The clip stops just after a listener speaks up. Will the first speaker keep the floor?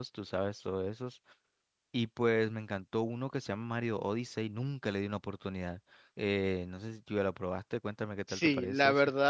No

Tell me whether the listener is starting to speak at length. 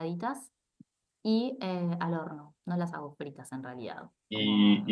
Yes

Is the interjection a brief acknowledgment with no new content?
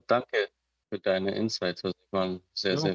No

